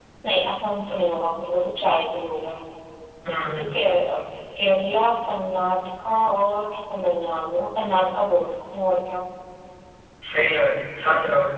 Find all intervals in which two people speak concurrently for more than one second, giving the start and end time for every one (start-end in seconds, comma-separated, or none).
none